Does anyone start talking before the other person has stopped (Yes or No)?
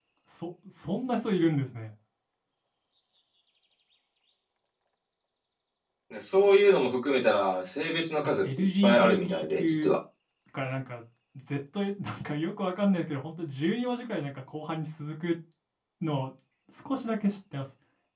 Yes